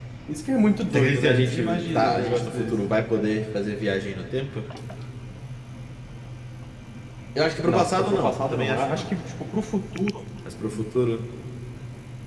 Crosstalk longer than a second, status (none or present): present